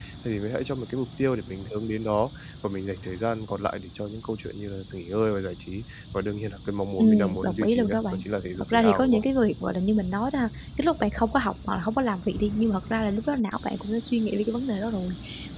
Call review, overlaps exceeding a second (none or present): present